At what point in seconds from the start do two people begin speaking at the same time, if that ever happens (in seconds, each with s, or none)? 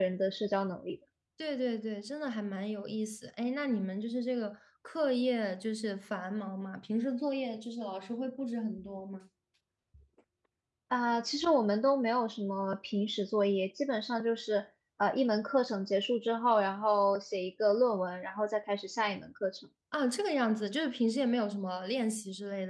none